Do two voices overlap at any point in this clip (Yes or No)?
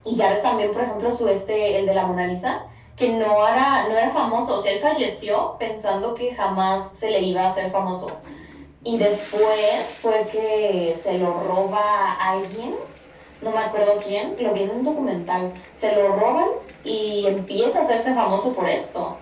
No